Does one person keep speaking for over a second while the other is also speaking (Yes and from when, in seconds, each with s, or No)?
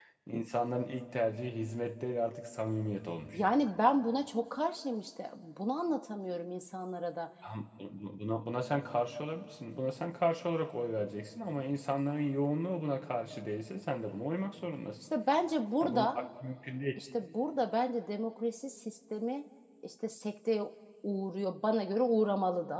No